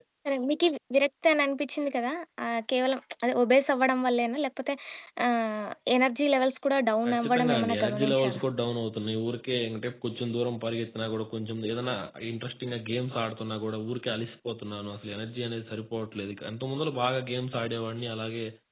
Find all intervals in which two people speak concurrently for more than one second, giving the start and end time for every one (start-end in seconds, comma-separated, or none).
7.1-8.4